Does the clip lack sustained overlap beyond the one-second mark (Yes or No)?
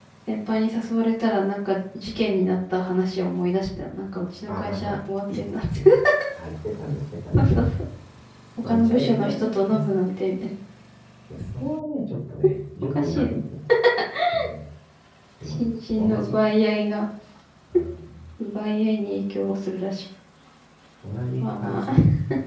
No